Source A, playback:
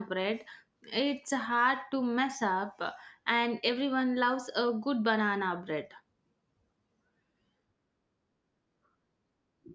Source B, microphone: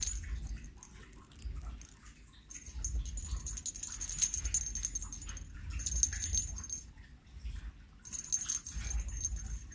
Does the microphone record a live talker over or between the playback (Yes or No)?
No